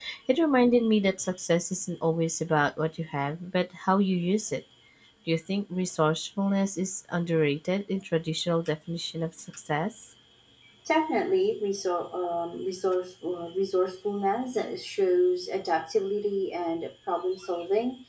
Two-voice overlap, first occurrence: none

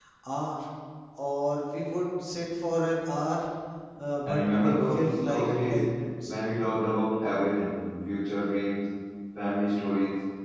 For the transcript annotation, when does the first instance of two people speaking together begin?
4.2 s

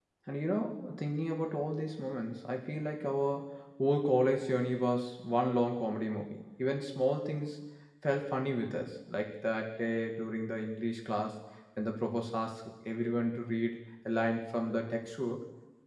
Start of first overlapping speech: none

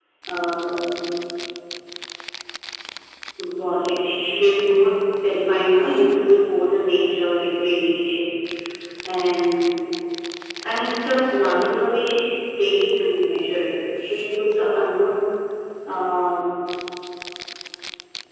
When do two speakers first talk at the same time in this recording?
none

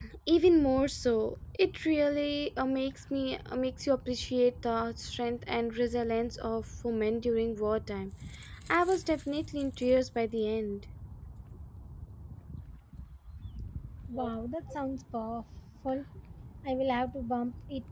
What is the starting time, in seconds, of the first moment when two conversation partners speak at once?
none

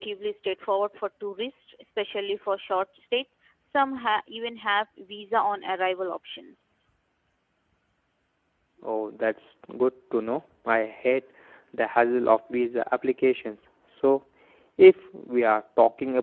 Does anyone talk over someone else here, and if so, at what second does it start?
none

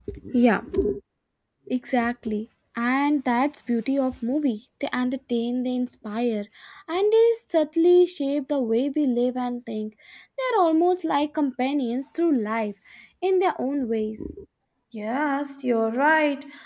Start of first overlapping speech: none

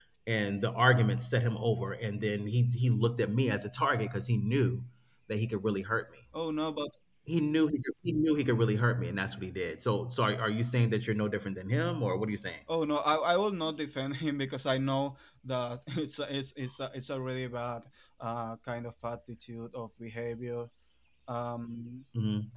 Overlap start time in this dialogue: none

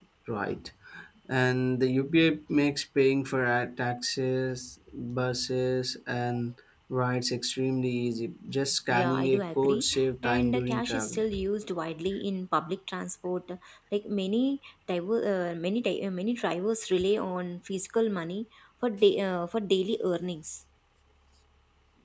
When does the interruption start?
8.9 s

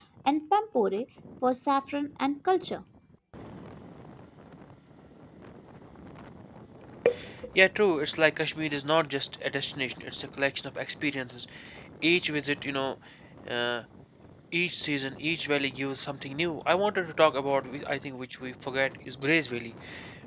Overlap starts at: none

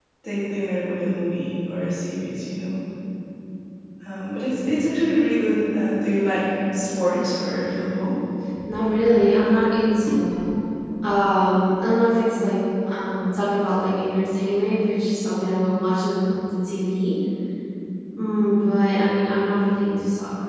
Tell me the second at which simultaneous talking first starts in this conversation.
none

